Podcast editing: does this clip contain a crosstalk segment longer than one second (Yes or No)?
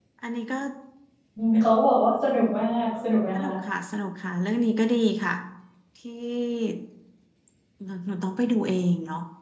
No